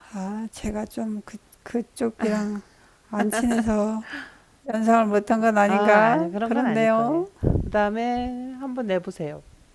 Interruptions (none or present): present